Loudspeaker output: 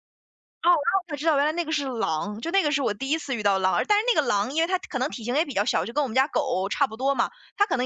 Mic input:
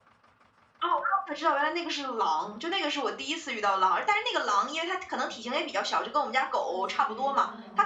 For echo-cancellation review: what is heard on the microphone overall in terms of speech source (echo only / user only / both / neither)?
both